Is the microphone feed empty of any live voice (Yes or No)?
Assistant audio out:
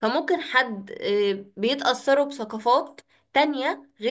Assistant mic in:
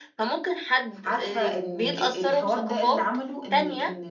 No